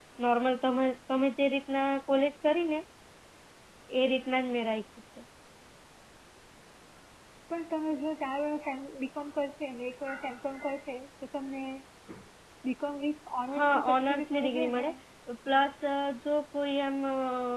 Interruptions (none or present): present